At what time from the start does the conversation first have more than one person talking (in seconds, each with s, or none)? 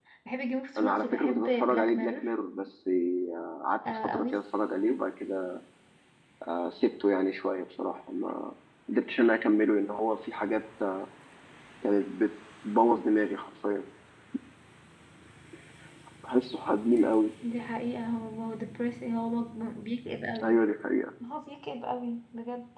0.8 s